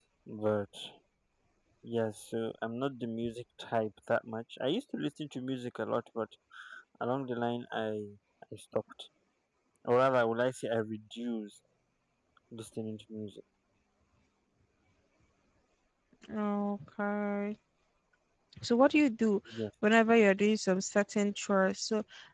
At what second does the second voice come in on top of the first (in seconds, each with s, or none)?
none